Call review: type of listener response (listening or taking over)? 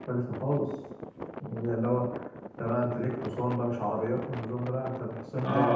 taking over